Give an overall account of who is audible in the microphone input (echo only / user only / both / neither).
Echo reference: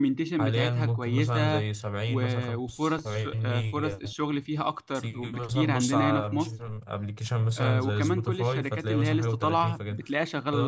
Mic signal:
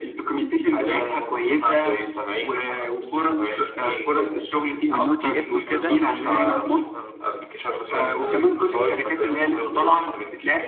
both